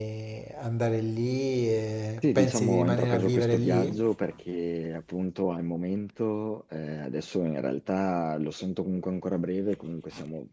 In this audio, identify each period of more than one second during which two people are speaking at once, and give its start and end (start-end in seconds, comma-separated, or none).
2.2-4.0